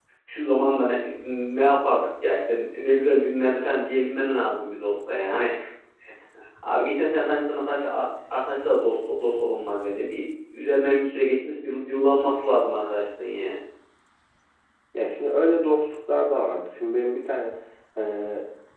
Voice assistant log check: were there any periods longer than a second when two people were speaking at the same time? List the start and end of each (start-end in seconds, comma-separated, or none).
none